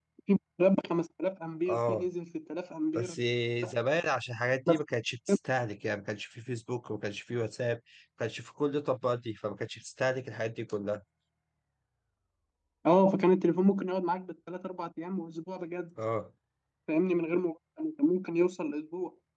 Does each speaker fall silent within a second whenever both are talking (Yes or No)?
Yes